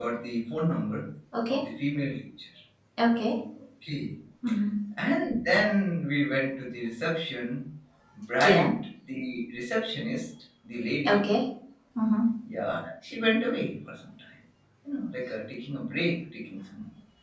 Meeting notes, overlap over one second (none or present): none